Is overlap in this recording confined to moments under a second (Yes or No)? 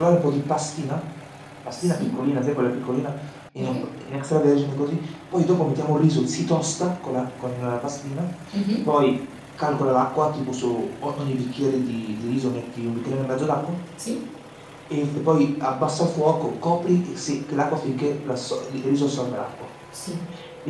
Yes